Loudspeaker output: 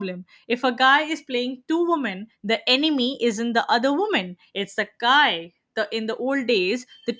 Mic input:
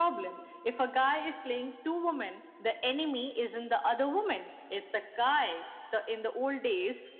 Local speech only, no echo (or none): none